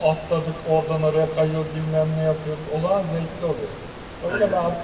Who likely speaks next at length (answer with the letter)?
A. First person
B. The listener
A